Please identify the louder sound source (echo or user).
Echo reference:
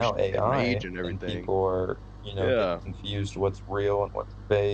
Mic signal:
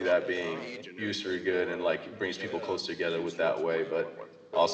user